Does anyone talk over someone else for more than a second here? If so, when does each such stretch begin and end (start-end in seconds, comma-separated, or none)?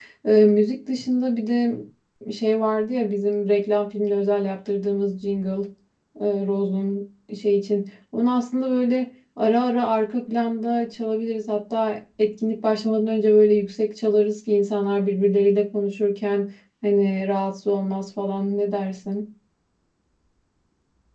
none